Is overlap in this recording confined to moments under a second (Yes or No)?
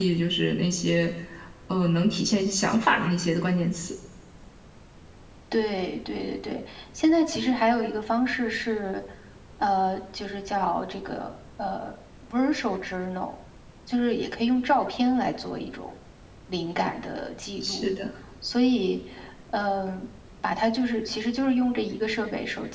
Yes